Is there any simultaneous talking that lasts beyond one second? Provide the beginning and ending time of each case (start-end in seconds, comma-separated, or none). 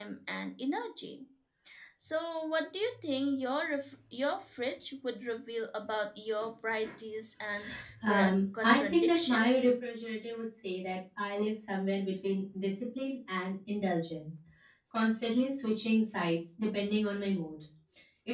8.0-9.4